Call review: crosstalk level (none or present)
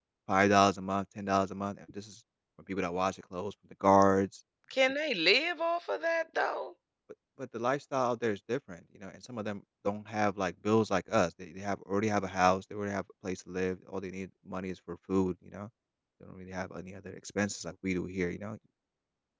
none